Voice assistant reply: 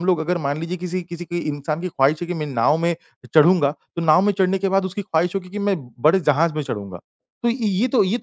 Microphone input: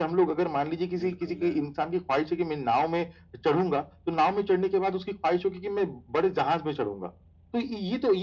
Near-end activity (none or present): present